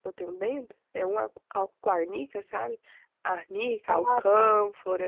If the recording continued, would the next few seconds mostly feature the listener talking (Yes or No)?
No